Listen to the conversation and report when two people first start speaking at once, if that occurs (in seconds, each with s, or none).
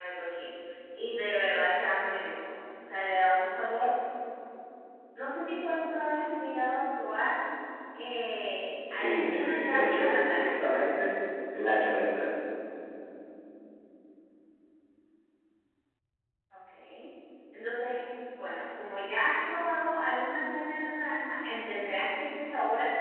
8.9 s